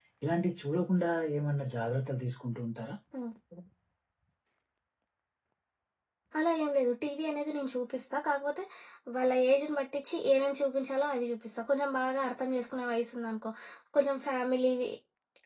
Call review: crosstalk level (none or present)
none